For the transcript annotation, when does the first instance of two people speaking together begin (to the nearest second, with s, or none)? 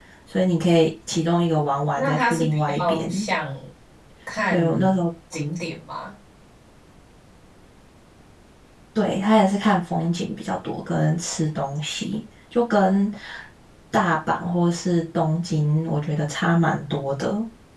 2 s